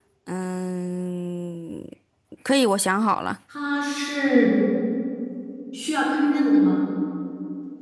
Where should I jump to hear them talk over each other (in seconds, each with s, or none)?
none